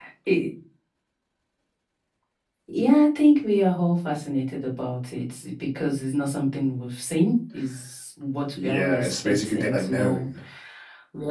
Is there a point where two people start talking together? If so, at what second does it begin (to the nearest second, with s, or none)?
9 s